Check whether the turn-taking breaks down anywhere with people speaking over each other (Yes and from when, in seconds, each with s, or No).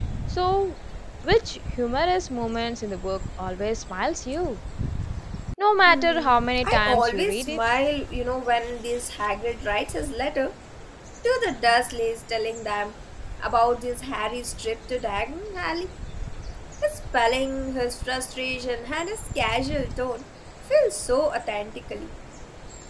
Yes, from 5.9 s